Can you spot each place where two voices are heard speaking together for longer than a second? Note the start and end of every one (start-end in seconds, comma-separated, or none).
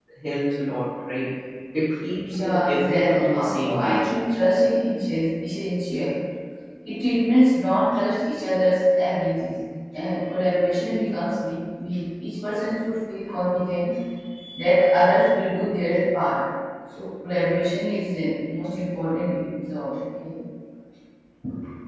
2.3-4.1